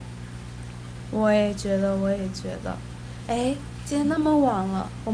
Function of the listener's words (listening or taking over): listening